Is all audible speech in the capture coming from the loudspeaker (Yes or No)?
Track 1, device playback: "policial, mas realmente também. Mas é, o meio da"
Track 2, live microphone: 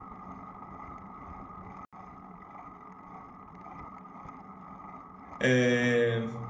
No